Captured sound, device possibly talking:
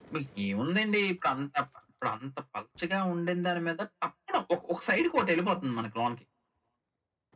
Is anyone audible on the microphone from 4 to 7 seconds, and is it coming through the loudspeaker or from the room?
echo only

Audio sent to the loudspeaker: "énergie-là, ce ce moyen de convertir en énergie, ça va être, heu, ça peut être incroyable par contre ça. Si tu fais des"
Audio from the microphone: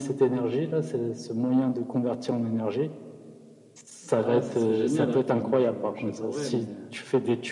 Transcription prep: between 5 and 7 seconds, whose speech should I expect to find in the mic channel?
both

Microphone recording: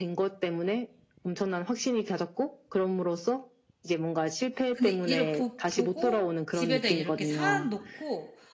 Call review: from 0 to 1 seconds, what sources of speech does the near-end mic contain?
echo only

